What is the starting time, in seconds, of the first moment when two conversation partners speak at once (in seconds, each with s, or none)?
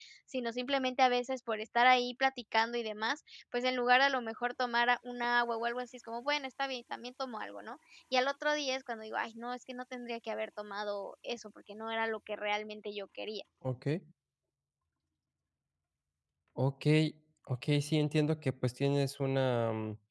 none